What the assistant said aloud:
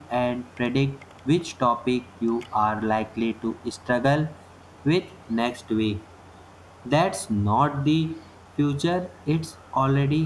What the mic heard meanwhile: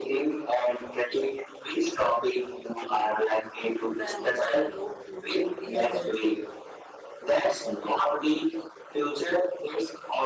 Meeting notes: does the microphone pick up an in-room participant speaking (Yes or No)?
Yes